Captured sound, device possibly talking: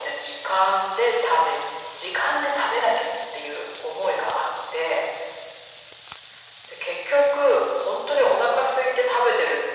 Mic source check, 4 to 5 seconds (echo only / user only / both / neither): echo only